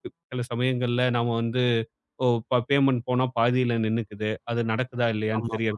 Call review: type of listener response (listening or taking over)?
listening